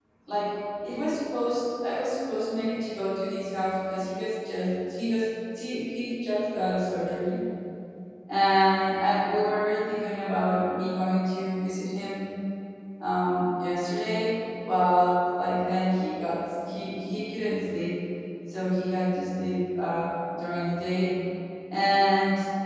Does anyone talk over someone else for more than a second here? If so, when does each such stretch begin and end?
none

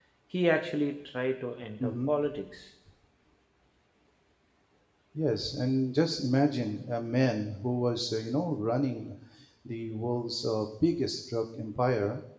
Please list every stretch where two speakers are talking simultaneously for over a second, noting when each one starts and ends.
none

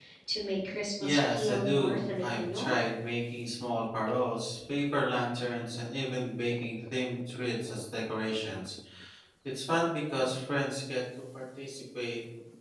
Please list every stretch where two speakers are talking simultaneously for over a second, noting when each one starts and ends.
1.0-2.7

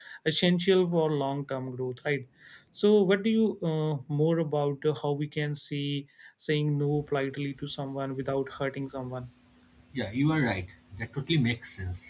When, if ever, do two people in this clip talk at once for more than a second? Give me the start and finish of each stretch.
none

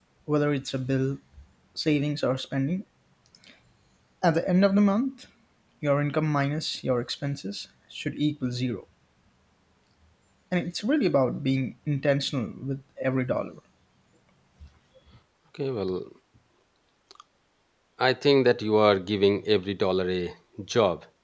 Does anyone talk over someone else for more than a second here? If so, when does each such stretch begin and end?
none

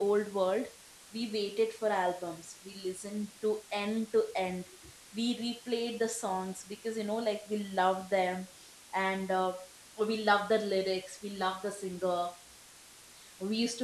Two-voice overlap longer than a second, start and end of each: none

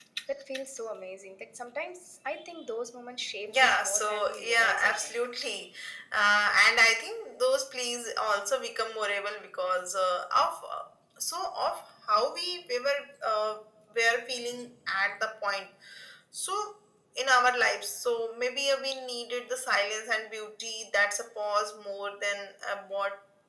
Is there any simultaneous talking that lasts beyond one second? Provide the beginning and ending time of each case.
3.5-5.2

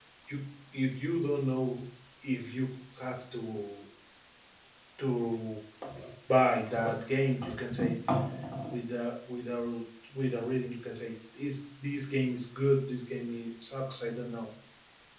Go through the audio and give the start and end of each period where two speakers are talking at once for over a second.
none

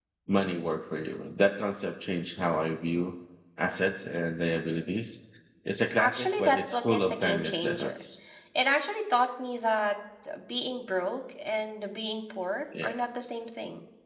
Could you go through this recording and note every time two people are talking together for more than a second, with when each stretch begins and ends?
6.0-8.0

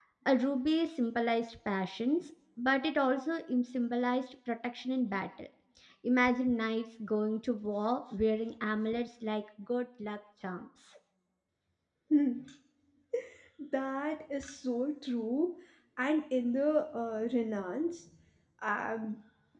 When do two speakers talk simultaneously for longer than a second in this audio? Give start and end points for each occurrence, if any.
none

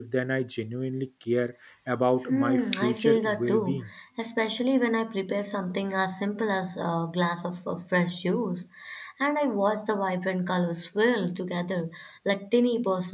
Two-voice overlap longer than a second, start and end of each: 2.3-3.8

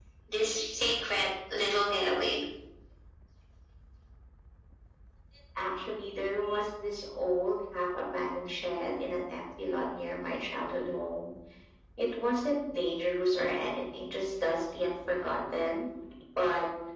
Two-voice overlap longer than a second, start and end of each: none

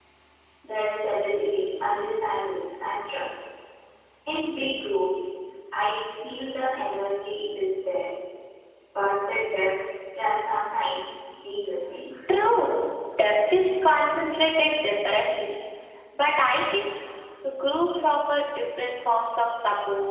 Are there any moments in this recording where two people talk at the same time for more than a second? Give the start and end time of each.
none

